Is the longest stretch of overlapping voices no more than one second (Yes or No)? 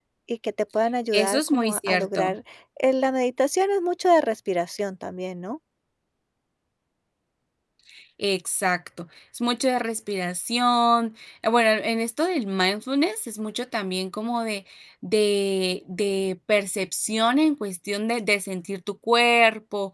No